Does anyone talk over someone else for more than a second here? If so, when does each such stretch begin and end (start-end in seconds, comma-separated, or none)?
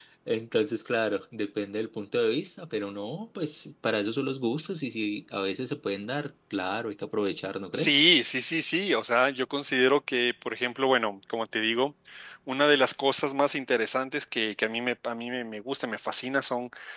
none